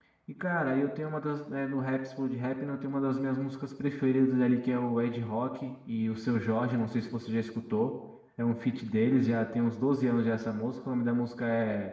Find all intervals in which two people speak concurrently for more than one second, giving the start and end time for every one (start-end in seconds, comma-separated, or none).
none